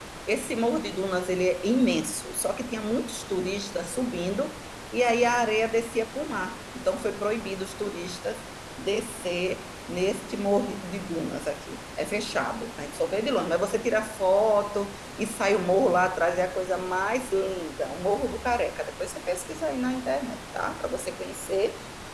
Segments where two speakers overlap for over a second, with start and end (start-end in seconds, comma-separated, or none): none